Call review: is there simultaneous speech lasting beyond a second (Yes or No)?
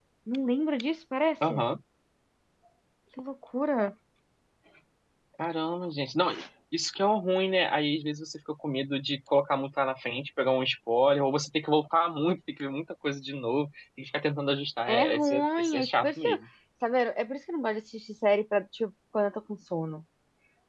Yes